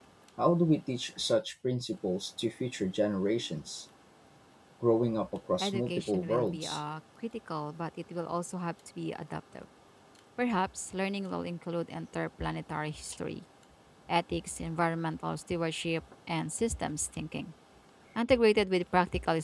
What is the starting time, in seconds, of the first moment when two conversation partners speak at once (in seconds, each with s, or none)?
5.6 s